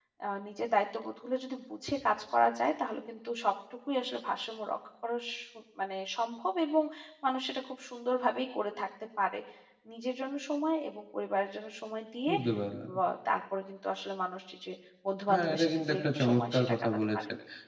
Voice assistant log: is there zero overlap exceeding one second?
No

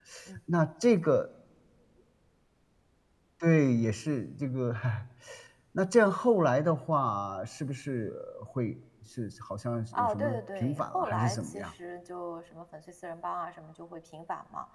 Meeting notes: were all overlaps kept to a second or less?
No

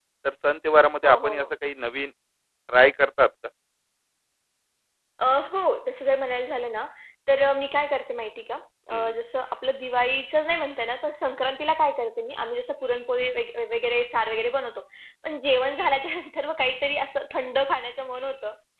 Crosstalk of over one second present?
No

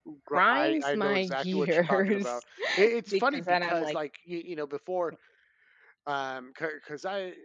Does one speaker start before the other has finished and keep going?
Yes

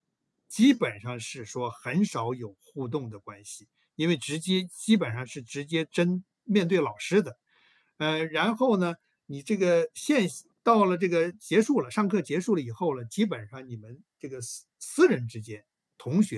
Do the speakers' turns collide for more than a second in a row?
No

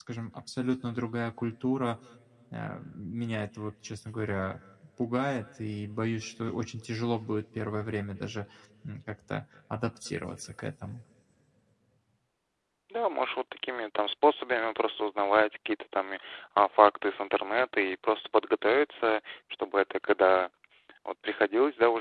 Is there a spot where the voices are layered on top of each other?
No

